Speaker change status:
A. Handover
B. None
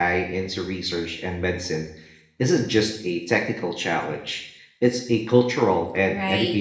A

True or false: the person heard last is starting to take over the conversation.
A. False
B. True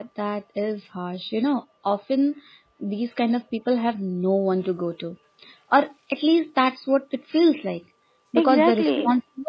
A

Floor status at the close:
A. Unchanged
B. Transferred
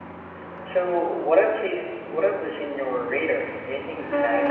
B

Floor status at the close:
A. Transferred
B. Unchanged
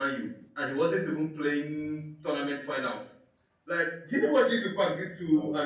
B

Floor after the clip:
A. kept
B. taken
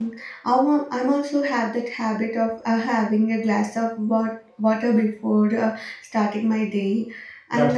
A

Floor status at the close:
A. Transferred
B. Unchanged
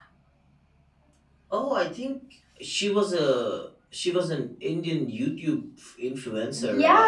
A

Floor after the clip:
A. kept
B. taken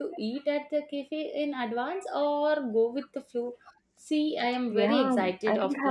B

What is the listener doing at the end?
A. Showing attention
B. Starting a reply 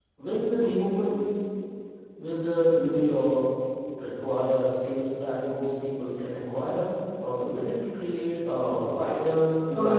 B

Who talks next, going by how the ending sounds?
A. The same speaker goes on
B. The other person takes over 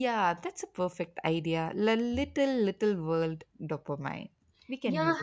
B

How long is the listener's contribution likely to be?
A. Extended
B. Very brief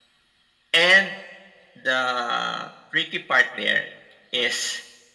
B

